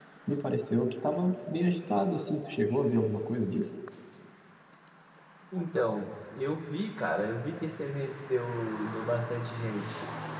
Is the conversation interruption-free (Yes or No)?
Yes